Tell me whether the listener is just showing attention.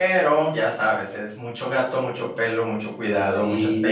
No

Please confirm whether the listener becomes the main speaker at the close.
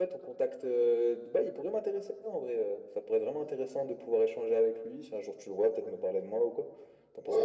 Yes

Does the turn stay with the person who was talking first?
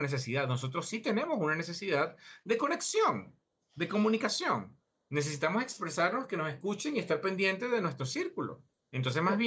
Yes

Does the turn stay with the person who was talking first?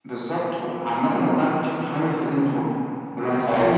Yes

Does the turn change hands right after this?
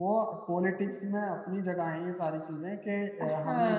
Yes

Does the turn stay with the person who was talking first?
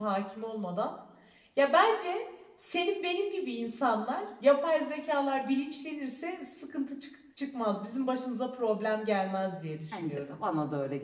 No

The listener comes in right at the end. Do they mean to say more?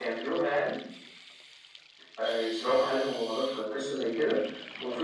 No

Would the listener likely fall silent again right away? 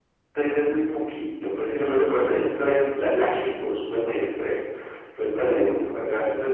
Yes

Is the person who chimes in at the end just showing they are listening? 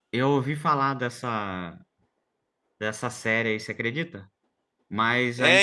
No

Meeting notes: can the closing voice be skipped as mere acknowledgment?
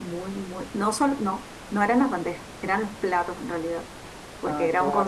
Yes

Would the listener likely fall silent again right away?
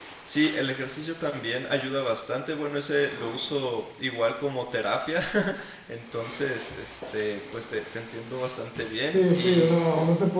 No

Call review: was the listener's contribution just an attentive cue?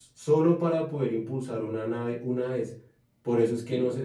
Yes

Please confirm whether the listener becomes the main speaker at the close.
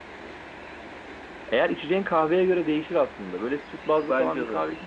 No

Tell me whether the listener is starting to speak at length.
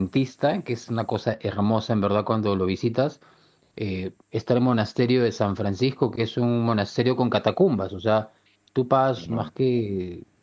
No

